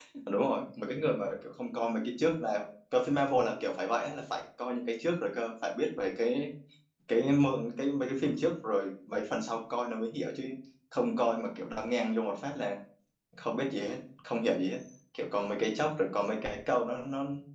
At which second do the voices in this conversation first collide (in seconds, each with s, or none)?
none